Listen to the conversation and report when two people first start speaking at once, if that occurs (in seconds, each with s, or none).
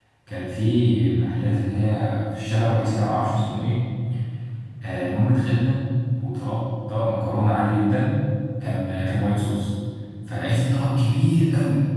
none